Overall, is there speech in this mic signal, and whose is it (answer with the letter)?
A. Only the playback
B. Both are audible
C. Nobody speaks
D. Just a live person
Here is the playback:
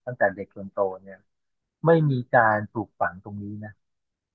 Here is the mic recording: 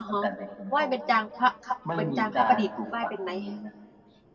B